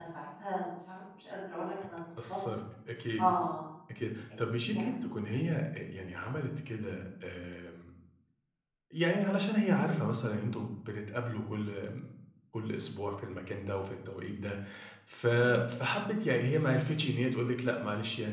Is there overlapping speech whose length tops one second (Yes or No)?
No